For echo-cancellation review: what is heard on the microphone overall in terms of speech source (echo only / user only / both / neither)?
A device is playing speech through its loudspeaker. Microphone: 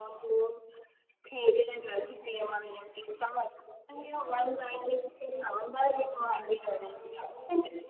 both